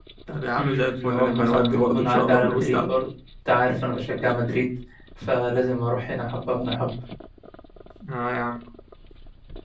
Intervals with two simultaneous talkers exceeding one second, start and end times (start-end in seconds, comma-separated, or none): 0.6-3.0